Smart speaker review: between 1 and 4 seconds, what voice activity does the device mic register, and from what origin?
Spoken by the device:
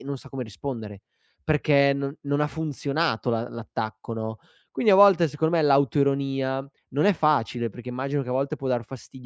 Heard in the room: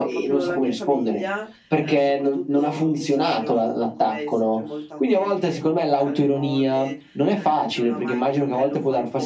both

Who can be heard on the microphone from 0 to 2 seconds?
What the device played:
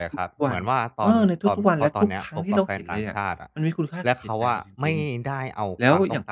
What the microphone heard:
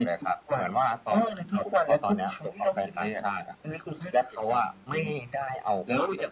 echo only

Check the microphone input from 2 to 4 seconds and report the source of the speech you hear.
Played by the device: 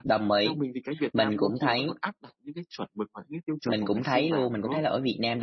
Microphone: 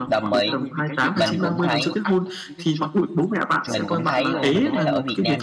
both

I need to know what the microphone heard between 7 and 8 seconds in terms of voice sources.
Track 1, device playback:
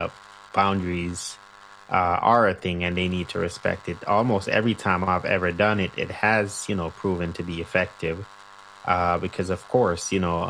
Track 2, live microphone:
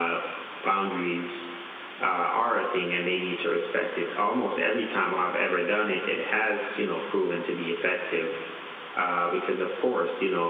echo only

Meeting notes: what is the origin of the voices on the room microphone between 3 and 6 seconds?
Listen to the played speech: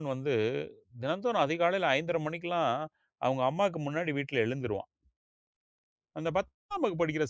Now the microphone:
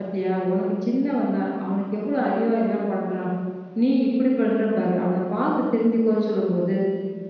user only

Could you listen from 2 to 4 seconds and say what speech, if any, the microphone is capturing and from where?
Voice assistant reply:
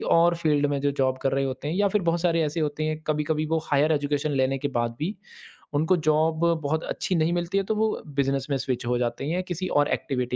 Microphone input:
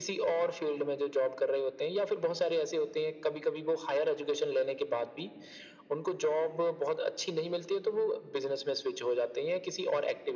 echo only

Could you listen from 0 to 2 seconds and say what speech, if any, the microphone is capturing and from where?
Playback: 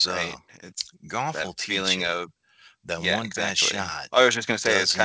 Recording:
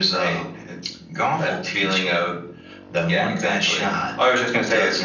echo only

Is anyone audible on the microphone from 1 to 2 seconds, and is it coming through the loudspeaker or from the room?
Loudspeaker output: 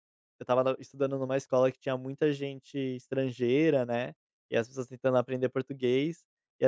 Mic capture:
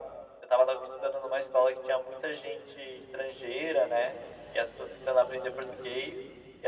echo only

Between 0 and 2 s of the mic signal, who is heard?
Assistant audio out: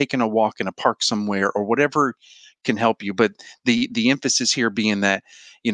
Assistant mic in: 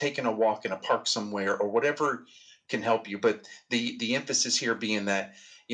echo only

